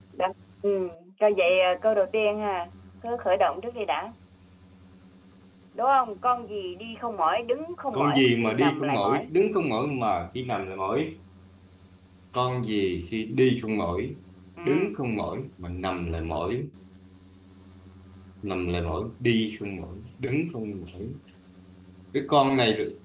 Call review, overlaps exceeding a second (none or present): present